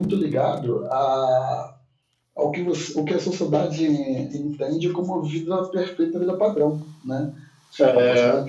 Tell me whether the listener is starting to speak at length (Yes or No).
No